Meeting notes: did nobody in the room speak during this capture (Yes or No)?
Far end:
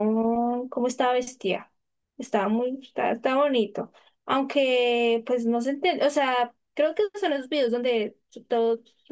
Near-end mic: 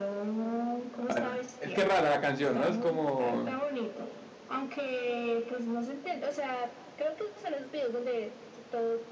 No